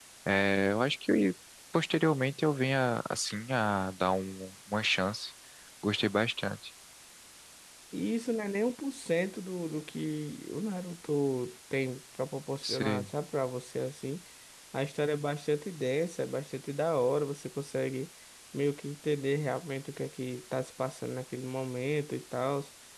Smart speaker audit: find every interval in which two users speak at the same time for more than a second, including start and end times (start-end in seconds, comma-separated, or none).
none